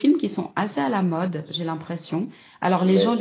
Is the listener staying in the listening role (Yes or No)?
No